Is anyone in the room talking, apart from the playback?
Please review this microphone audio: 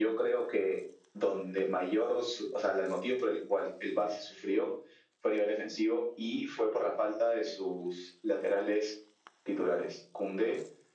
No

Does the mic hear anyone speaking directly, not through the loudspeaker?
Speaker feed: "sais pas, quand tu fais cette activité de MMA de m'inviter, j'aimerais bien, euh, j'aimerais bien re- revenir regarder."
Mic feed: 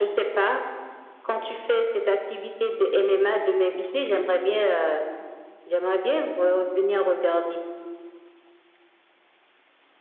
Yes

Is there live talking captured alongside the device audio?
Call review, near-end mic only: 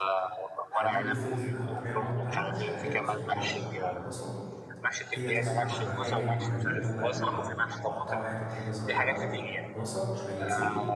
Yes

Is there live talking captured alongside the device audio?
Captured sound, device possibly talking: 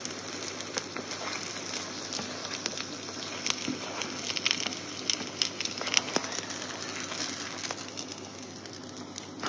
No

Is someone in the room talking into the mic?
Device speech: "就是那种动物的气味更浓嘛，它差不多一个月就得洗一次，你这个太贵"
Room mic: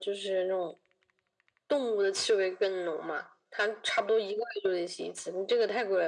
No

